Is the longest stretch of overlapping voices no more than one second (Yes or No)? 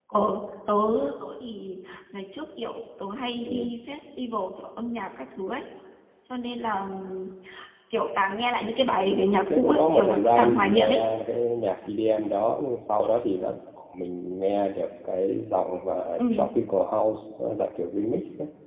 No